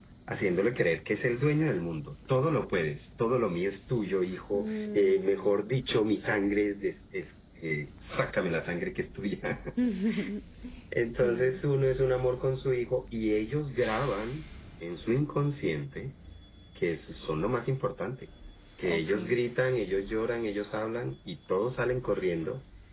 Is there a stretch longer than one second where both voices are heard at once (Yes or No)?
Yes